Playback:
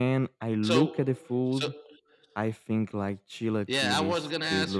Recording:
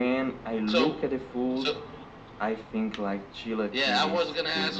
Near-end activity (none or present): none